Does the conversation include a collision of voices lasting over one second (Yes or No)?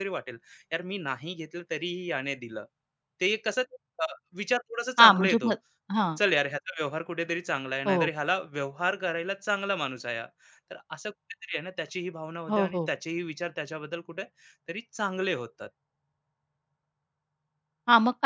No